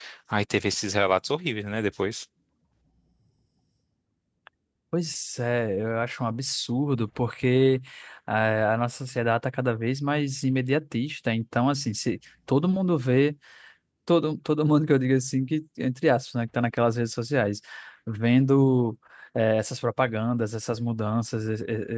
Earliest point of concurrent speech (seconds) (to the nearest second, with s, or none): none